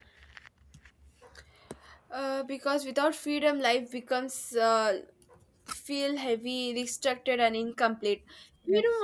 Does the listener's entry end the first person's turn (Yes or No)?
No